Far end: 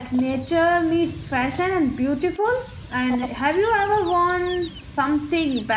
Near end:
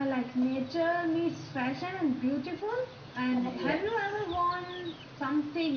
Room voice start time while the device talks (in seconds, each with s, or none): 3.3 s